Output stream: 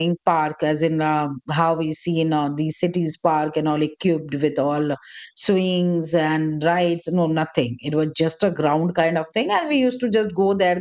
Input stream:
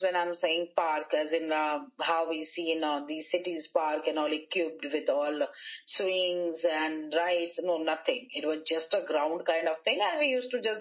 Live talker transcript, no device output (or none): none